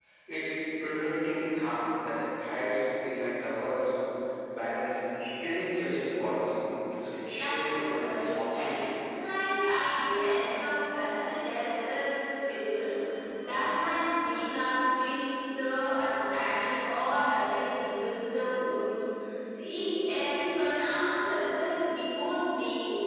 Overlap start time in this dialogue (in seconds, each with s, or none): 7.3 s